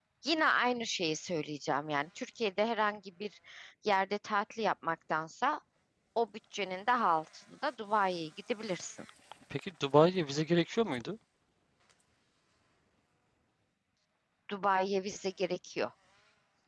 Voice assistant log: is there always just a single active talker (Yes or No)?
Yes